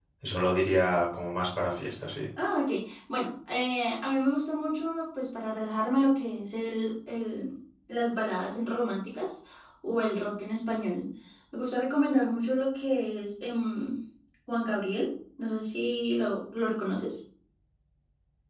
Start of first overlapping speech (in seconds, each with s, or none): none